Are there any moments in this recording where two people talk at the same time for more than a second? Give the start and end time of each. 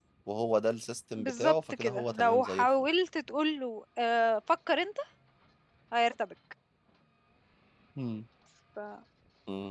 1.2-2.7

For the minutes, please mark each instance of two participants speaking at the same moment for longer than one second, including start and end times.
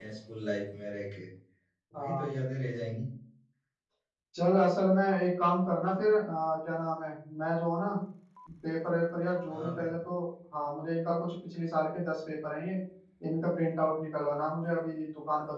none

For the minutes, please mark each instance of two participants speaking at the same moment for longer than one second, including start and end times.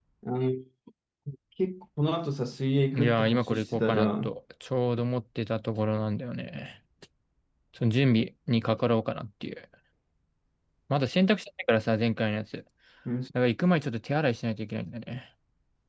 3.0-4.3

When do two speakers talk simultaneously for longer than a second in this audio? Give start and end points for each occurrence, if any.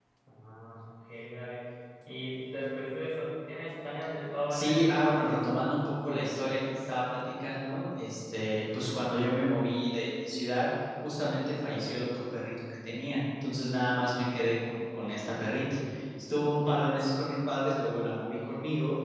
4.5-5.8

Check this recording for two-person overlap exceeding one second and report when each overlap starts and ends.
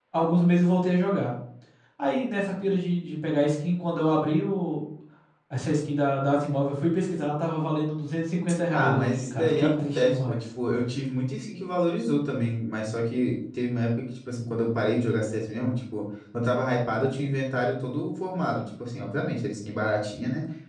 8.7-10.4

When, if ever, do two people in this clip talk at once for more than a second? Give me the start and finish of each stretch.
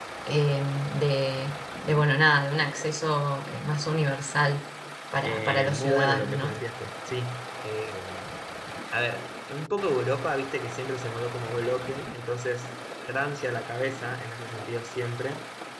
5.2-6.5

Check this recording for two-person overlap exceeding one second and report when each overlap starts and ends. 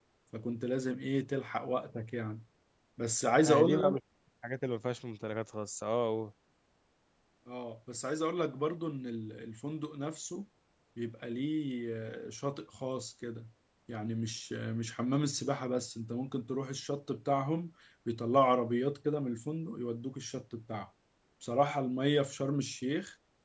none

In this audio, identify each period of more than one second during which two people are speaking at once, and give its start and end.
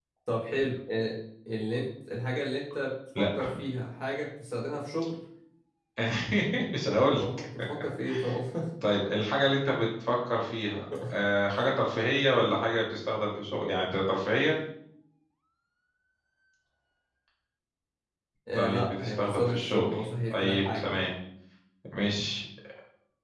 18.6-21.1

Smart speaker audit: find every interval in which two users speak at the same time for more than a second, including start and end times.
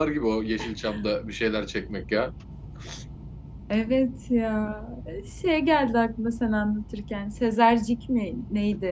none

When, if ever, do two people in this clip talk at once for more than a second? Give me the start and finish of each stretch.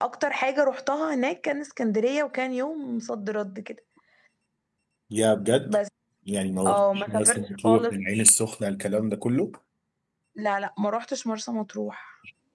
6.7-7.9

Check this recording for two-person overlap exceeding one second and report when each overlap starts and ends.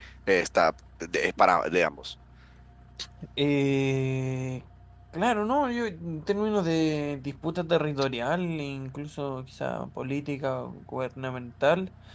none

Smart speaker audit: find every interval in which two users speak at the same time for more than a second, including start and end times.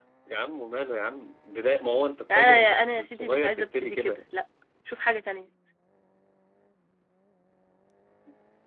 2.3-4.2

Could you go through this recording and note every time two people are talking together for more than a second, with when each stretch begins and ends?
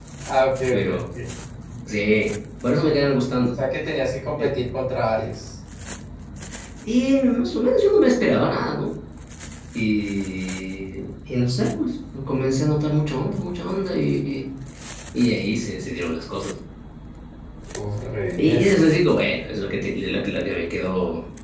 none

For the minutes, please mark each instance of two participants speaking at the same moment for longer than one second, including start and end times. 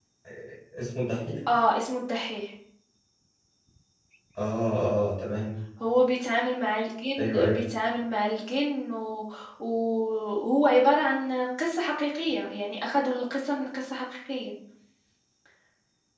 none

